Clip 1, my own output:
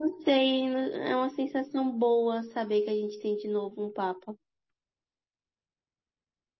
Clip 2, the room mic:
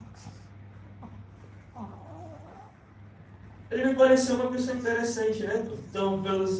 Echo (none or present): none